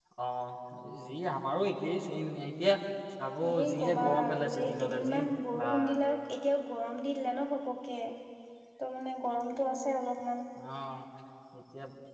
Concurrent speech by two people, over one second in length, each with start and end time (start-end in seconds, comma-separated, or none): 3.6-5.2